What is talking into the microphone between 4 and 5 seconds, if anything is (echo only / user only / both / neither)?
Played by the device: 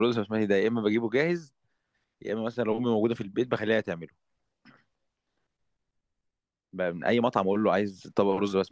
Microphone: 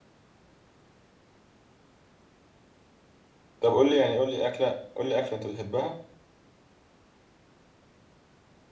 user only